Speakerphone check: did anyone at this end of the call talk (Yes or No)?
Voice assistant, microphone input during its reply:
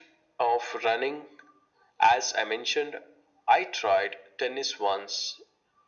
No